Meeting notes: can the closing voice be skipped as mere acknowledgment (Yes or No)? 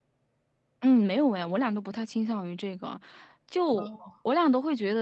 Yes